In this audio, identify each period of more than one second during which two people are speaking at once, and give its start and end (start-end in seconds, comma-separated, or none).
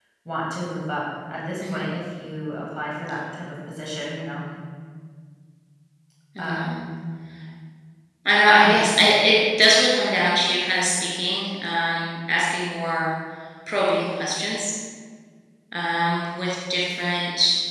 none